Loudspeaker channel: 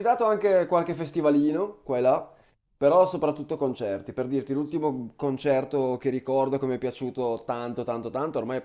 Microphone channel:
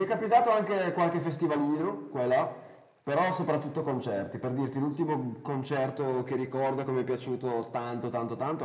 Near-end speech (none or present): none